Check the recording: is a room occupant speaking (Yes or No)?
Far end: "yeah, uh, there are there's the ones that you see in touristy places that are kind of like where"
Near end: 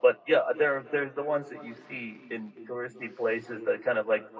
No